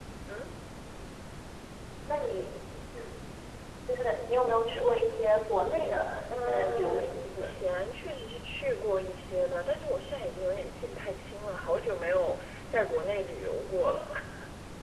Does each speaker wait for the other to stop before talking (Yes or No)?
No